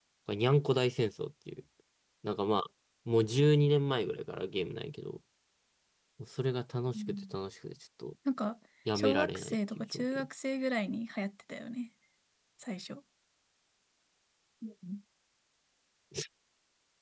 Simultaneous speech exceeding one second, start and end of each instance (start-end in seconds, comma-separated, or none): 9.0-10.3